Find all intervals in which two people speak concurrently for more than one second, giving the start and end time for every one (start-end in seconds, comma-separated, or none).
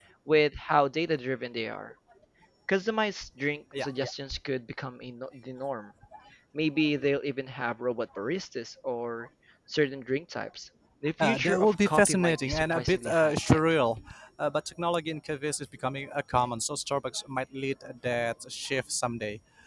11.2-13.6